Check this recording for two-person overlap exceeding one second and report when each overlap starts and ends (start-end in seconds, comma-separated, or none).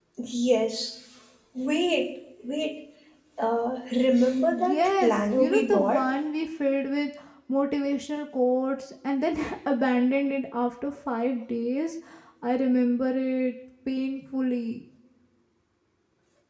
4.5-6.1